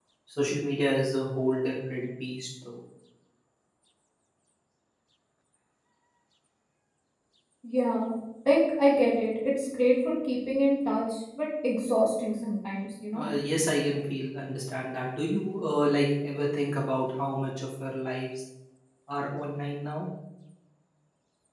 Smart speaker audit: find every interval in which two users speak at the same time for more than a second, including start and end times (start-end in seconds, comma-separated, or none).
none